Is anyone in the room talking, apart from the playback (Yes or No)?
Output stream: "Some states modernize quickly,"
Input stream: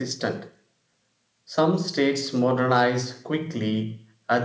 No